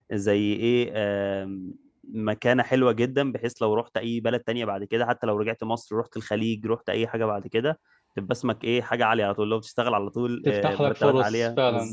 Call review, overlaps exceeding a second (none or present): present